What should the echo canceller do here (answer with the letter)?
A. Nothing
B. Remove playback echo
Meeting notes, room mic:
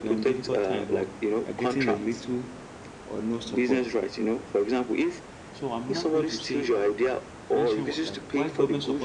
B